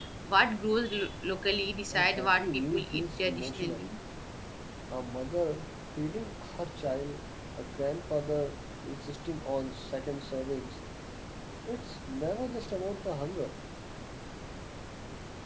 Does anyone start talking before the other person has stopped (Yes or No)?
Yes